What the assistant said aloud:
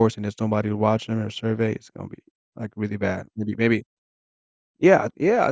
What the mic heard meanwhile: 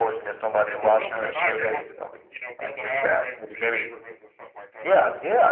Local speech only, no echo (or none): if it was open at night, they'd have to, you know, build it out away from the neighborhoods and stuff like that because